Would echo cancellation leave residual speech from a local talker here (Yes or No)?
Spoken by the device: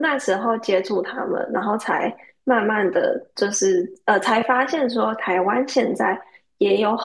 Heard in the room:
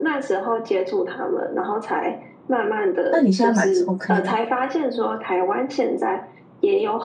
Yes